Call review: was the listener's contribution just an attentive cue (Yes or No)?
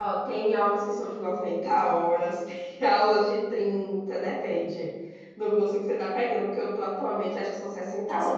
No